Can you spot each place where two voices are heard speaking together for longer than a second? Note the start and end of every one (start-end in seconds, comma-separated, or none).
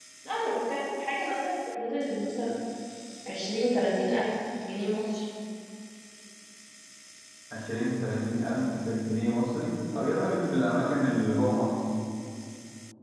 none